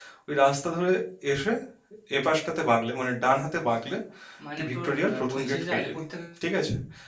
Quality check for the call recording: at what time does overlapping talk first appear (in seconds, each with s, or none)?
4.6 s